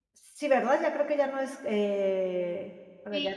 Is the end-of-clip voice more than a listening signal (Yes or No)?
Yes